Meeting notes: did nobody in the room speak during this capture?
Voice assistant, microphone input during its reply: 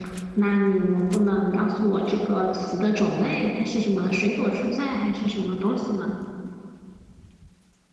Yes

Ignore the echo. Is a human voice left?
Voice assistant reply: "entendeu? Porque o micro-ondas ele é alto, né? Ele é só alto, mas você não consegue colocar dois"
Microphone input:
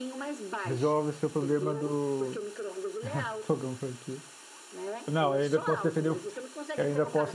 Yes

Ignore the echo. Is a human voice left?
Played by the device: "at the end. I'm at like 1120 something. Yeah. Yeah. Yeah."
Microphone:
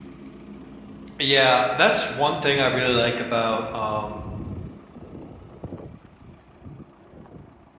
Yes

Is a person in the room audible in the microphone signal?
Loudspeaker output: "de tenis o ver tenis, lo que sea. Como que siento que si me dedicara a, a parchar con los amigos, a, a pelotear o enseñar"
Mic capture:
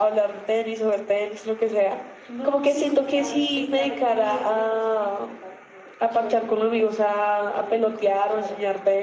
Yes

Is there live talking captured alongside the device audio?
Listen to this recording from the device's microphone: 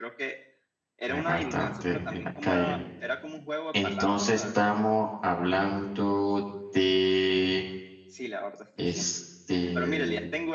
Yes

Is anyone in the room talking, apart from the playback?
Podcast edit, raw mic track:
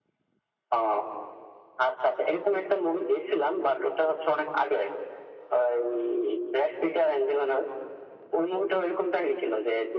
No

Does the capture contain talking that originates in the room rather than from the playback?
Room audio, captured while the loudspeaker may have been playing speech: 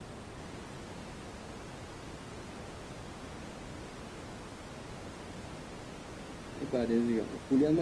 Yes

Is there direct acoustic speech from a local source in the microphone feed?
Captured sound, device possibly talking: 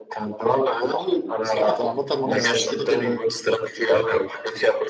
Yes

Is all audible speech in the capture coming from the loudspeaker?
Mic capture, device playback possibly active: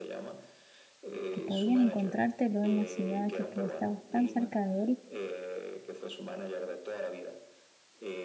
No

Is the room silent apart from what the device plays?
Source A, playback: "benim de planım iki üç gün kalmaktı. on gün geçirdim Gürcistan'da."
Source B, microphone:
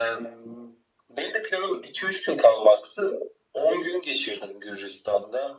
Yes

